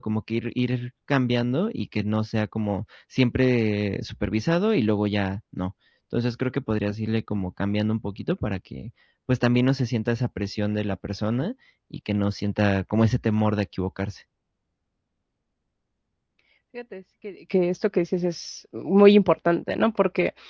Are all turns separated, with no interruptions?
Yes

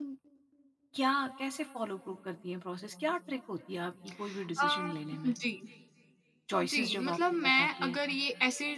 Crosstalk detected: Yes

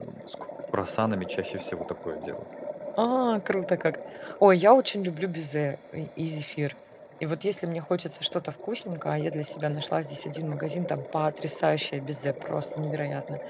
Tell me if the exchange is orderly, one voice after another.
Yes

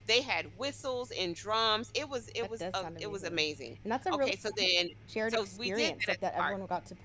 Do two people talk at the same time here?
Yes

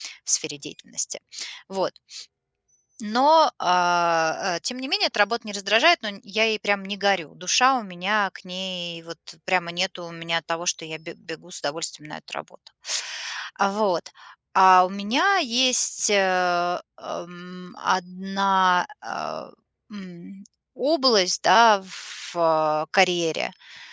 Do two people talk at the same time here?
No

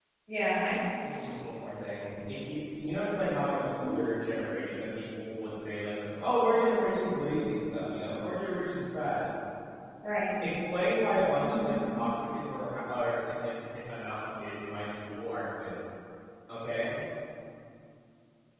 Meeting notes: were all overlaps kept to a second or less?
Yes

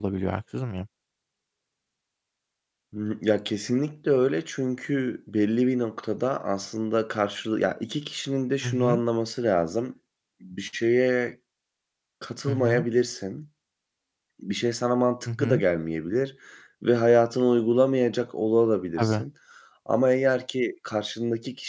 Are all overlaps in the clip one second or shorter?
Yes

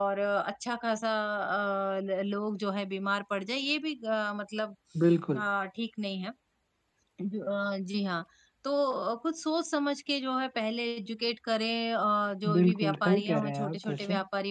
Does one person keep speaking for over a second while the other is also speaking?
Yes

